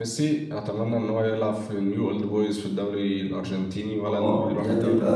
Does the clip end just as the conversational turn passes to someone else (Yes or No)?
Yes